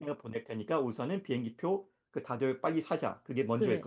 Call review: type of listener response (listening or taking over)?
taking over